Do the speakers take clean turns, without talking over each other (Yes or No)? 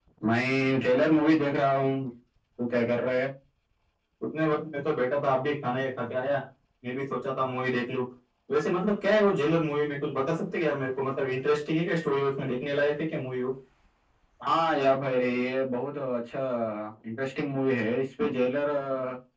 Yes